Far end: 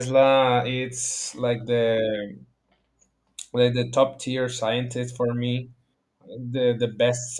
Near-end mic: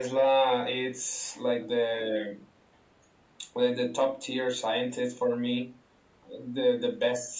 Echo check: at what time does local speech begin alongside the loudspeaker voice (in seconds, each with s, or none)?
none